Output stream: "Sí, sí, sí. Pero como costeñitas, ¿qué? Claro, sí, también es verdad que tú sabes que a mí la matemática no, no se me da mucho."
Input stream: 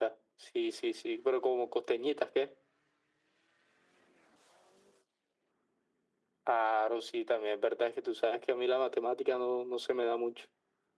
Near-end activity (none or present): none